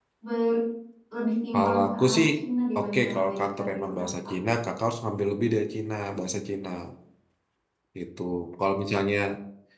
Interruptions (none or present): present